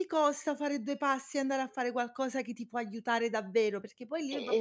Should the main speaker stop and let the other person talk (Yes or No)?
No